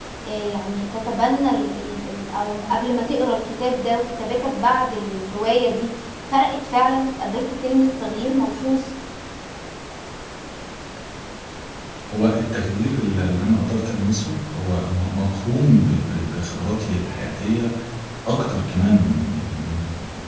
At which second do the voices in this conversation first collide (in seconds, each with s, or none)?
none